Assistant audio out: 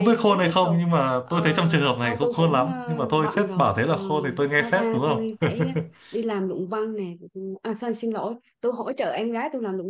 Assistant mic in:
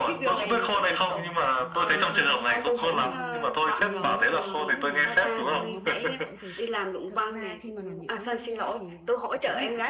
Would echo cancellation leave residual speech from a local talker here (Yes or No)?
Yes